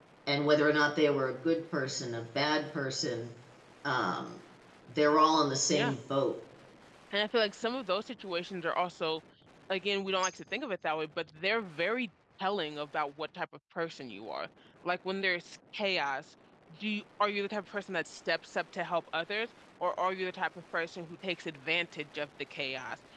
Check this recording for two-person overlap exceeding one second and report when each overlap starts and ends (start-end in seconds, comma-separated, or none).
none